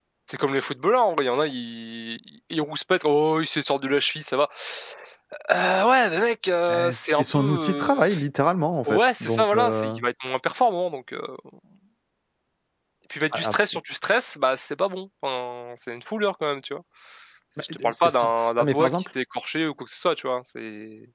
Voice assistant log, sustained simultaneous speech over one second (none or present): present